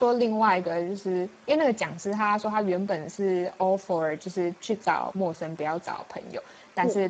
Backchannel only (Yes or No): Yes